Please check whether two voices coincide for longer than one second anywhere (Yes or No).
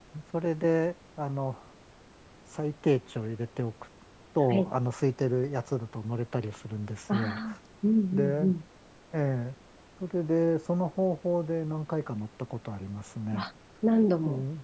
No